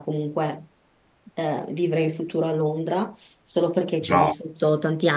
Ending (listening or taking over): listening